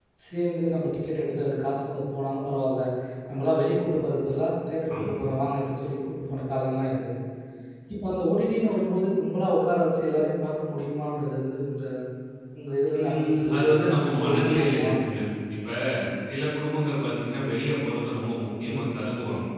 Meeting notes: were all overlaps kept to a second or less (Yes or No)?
No